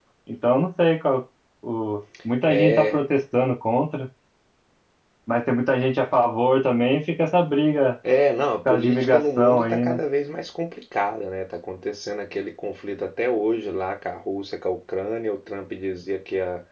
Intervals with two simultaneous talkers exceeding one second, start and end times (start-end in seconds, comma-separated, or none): 8.7-10.0